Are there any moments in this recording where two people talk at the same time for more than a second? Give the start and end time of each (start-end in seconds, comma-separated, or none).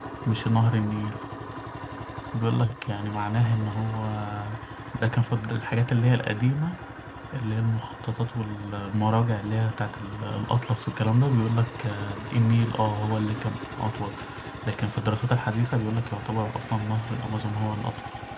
none